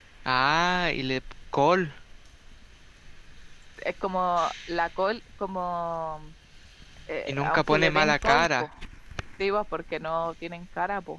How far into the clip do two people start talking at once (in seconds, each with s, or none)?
7.3 s